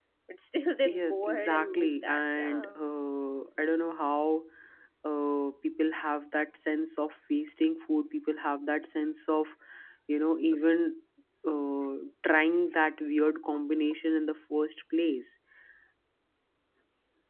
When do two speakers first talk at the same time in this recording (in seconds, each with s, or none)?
0.8 s